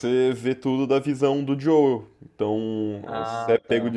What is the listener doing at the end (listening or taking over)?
listening